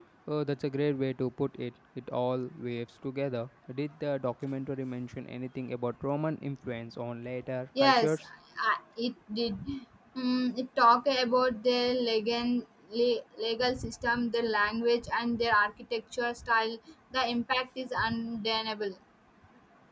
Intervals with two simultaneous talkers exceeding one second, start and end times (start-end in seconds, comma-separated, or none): none